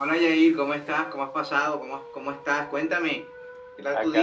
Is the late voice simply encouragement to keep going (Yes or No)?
No